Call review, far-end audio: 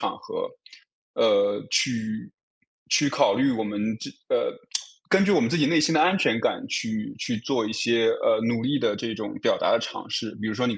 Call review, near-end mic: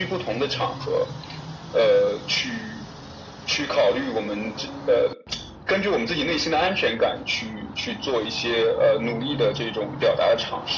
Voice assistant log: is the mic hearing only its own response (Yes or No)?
Yes